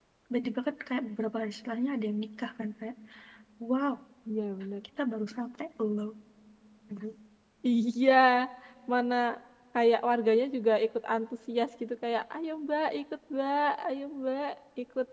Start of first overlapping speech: none

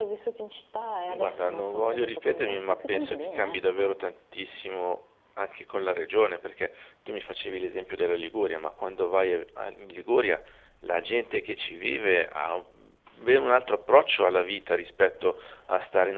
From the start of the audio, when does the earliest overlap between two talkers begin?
1 s

